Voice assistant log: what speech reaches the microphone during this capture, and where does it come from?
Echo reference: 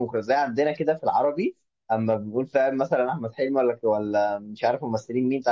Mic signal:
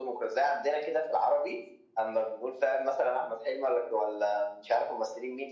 echo only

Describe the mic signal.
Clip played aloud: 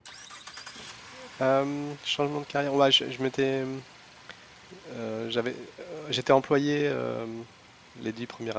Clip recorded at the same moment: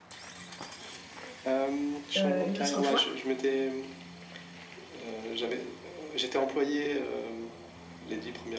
both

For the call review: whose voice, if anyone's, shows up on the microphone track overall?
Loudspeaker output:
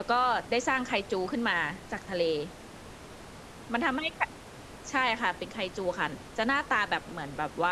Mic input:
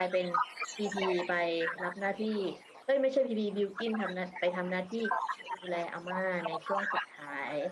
both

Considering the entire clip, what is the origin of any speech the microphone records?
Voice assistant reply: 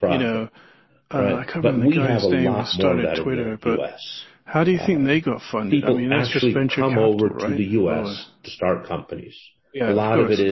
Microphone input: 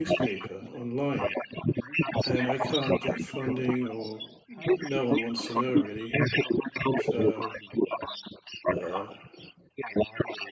both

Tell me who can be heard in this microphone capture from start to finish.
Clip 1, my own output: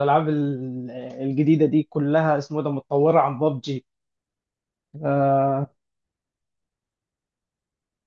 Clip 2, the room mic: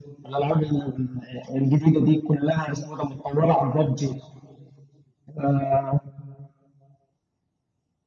echo only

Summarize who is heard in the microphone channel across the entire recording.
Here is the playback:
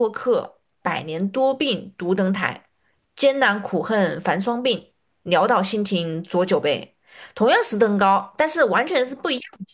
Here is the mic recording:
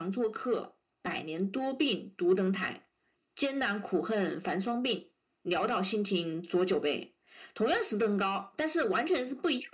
echo only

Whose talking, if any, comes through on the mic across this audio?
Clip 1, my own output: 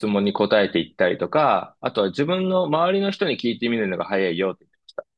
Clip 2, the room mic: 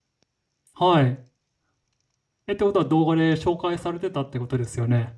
user only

